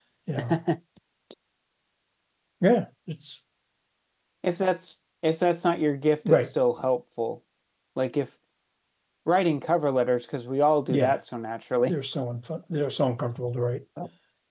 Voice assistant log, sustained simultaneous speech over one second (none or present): none